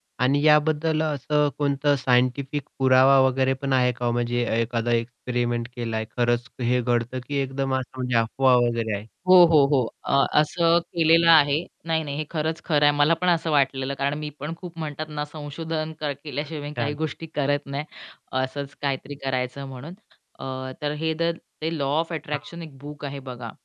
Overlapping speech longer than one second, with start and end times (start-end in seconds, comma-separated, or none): none